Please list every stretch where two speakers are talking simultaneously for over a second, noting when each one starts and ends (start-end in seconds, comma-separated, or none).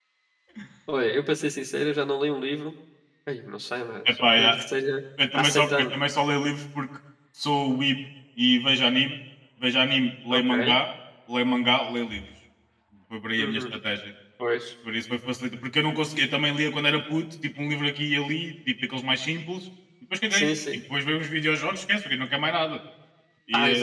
none